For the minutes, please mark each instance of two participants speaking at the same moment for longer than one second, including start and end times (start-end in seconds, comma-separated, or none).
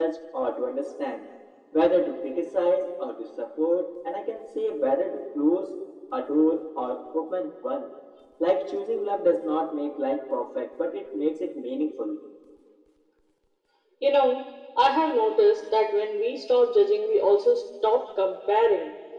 none